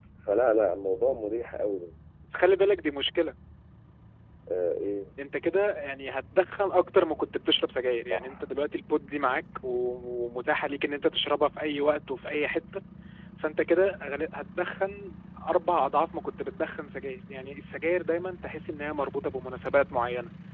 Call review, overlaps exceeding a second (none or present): none